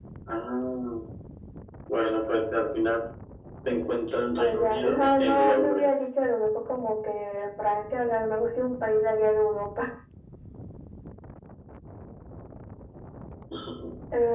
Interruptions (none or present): present